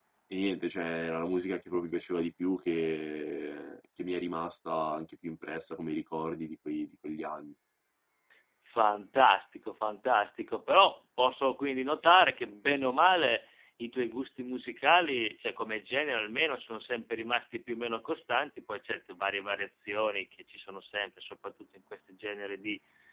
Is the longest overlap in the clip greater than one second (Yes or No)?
No